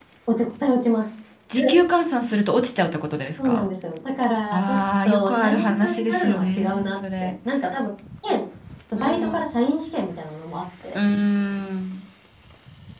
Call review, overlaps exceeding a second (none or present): present